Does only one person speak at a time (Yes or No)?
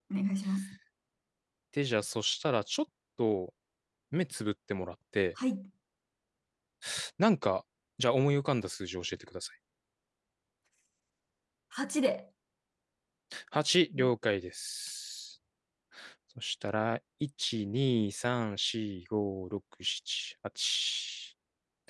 Yes